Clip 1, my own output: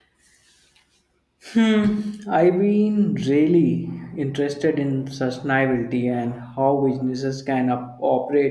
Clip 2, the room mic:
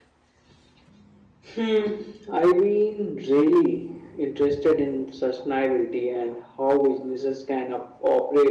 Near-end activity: none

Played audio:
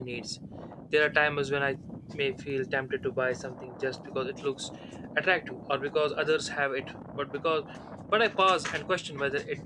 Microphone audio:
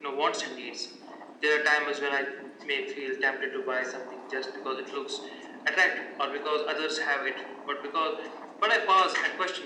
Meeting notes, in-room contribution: none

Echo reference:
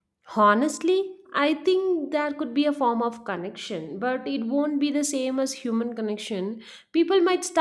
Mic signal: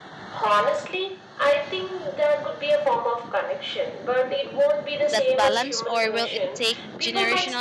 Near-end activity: present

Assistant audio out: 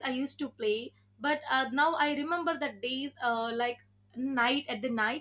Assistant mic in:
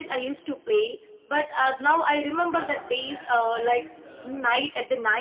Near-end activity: present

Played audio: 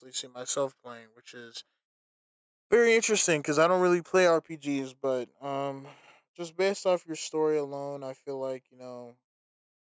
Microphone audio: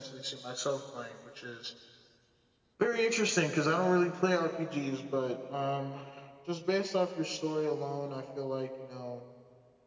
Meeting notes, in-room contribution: none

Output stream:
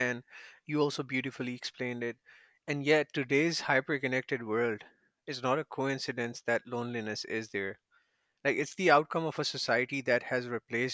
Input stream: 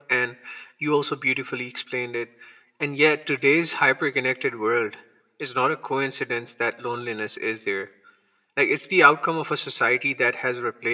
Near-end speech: none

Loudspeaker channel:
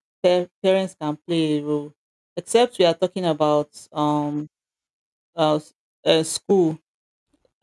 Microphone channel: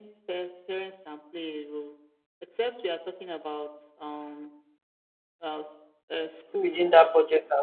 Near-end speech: present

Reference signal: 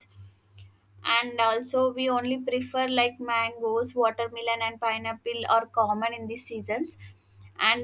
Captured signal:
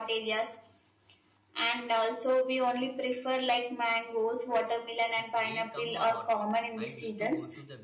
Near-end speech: present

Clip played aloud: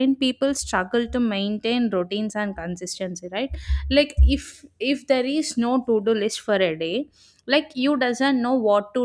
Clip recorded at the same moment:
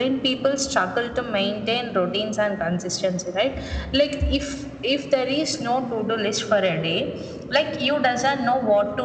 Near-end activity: none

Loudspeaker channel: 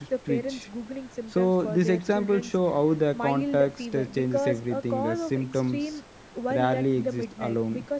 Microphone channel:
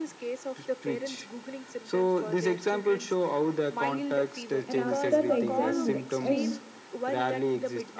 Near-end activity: present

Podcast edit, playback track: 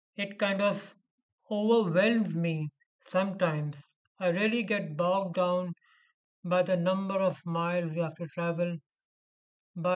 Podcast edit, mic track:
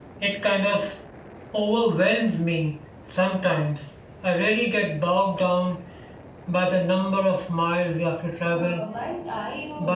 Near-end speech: present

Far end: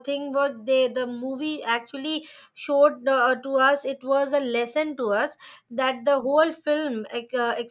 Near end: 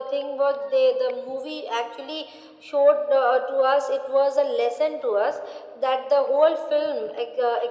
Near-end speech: none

